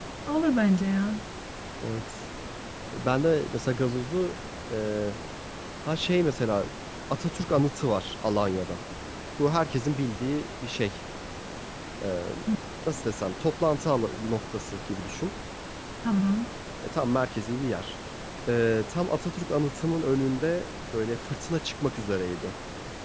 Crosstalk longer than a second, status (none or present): none